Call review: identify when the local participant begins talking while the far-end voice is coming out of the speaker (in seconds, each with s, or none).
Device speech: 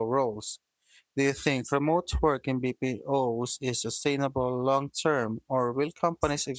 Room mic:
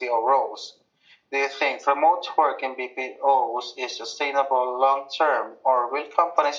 none